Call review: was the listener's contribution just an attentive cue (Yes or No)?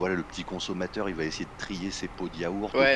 No